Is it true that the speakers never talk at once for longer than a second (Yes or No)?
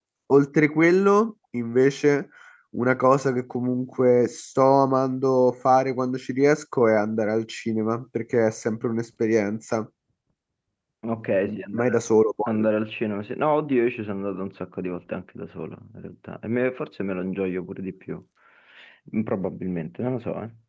Yes